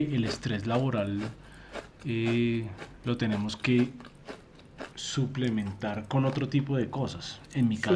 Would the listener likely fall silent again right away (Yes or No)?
Yes